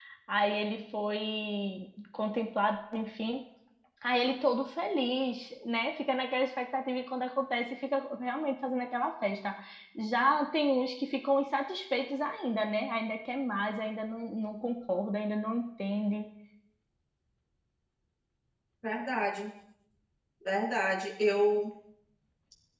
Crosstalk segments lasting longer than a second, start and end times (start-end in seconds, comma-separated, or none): none